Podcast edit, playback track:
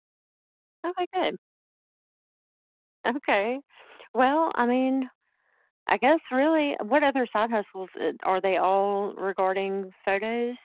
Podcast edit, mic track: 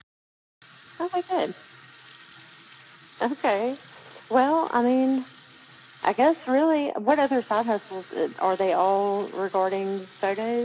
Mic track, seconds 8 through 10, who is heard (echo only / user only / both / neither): echo only